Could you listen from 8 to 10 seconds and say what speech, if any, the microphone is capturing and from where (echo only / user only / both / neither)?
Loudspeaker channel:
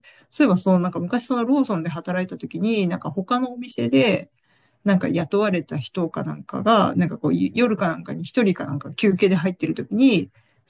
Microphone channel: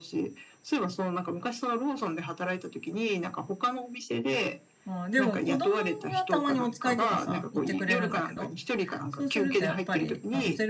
both